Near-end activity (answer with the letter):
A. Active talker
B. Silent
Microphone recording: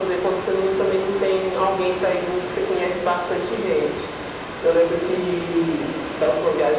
B